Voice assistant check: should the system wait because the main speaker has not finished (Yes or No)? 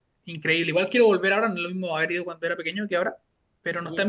Yes